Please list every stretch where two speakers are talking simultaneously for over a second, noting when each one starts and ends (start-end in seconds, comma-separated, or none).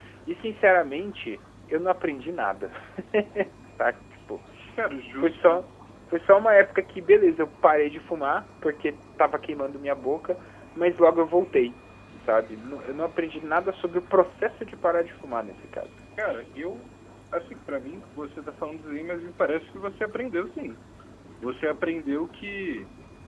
none